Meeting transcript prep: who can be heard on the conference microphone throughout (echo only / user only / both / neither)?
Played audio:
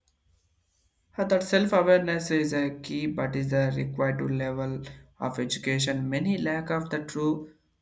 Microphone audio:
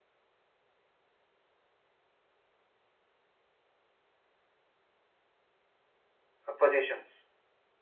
user only